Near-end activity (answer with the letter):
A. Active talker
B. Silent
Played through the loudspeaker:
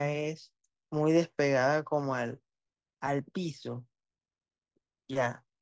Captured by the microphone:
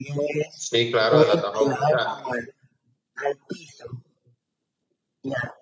A